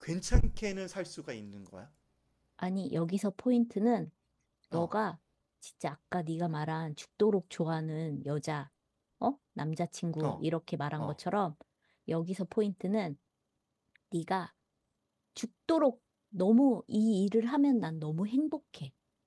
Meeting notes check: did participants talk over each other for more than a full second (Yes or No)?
No